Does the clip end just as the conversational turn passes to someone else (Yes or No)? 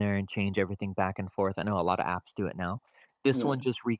No